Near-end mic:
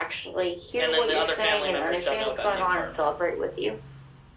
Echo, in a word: present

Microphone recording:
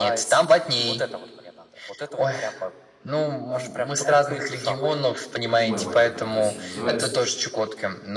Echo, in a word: present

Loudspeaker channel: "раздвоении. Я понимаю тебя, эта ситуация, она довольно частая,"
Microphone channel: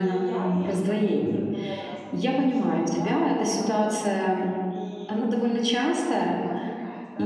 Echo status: present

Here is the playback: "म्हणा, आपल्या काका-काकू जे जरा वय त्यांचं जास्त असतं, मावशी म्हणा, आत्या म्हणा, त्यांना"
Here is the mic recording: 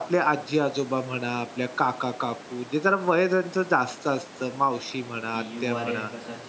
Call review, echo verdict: present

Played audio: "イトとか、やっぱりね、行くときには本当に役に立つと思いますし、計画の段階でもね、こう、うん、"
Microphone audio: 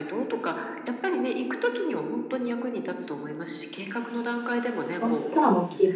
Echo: present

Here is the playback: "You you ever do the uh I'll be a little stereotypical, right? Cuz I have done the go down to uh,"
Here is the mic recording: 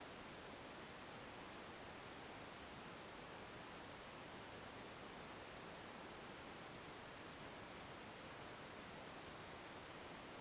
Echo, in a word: none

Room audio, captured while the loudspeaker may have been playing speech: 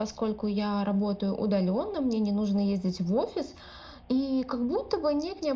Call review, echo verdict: present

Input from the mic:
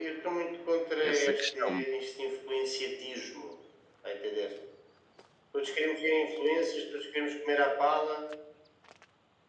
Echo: present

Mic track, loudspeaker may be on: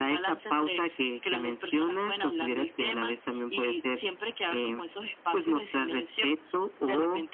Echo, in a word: present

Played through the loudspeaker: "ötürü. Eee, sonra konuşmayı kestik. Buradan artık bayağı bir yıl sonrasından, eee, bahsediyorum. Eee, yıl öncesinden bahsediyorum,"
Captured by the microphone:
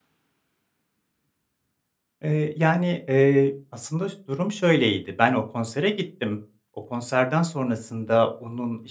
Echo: none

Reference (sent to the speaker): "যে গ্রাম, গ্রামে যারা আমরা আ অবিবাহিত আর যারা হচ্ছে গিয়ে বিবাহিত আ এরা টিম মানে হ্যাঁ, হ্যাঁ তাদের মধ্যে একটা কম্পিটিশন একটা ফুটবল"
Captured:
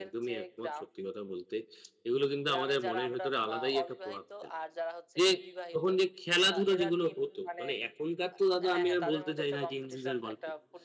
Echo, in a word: present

